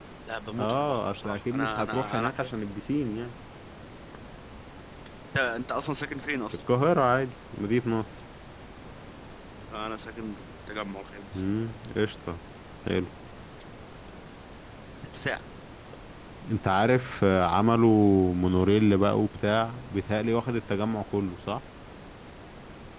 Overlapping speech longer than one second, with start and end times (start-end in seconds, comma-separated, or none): 0.6-2.5